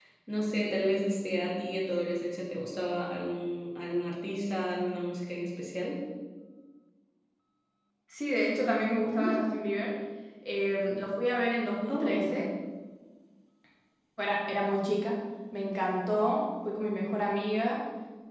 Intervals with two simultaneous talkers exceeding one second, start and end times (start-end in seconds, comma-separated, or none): none